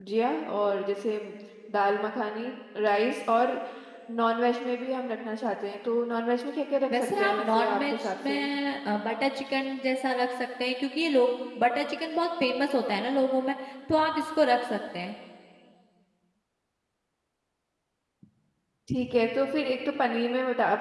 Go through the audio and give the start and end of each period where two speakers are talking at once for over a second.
7.2-8.4

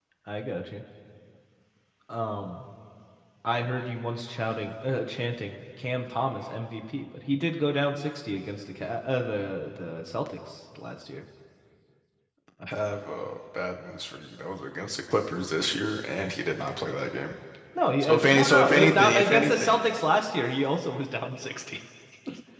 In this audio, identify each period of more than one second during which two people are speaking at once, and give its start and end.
18.0-19.8

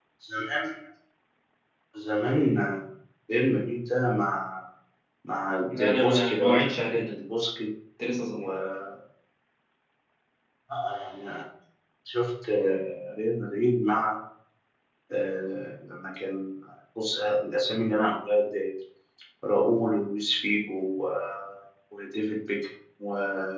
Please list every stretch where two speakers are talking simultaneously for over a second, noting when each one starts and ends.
5.7-7.2

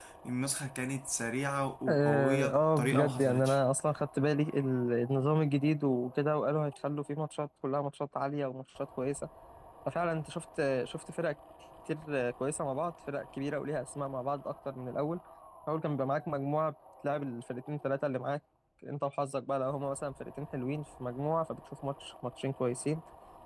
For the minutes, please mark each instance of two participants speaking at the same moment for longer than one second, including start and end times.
1.9-3.6

